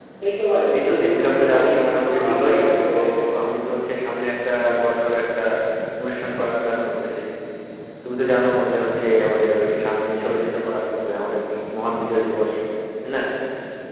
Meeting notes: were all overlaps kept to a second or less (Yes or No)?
No